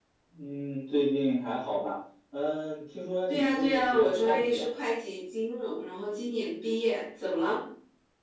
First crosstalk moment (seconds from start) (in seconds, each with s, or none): 3.3 s